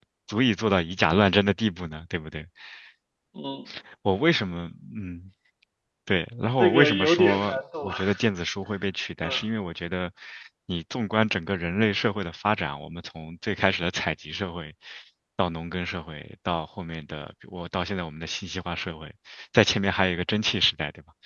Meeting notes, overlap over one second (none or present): present